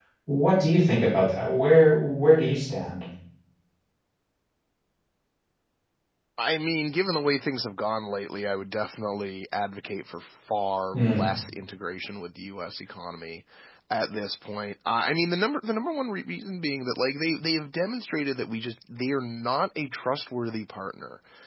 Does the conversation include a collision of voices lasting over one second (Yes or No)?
No